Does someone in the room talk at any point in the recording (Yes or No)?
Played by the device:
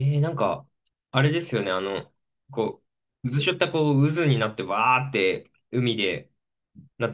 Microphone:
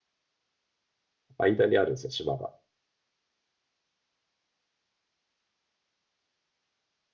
Yes